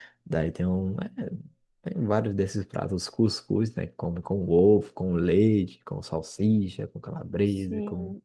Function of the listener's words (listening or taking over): taking over